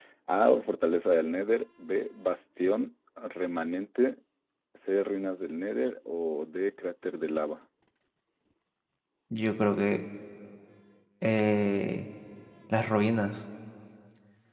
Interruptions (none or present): none